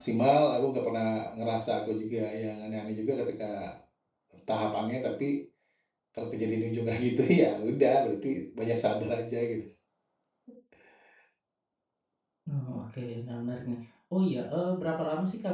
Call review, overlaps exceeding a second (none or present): none